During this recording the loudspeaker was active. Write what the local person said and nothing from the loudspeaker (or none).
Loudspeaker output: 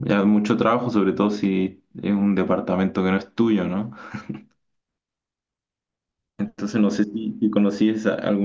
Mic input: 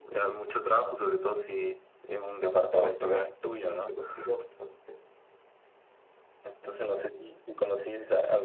se complica bastante, se complica bastante.